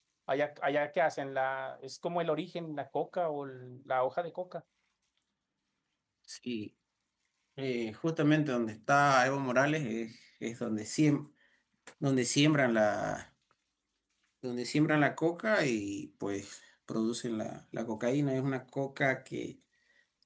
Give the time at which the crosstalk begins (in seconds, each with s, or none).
none